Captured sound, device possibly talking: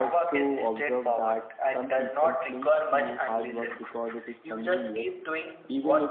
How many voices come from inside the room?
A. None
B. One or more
B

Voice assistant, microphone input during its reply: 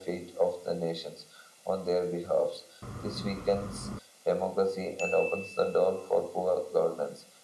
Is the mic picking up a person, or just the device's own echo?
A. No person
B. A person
A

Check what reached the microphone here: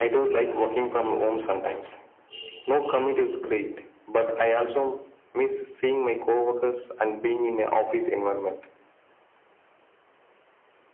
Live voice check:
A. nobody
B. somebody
A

